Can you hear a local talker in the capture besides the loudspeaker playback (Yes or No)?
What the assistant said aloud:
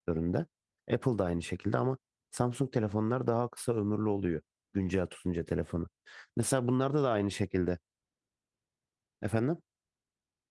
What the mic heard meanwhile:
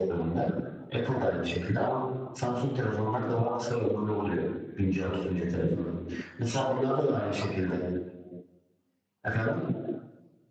No